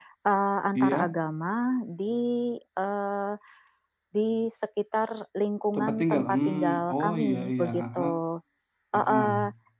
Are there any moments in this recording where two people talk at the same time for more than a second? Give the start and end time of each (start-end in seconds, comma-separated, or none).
5.8-8.1